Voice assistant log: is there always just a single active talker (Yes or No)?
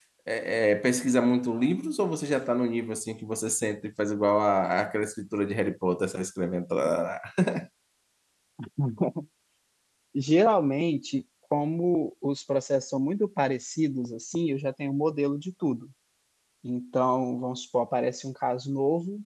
Yes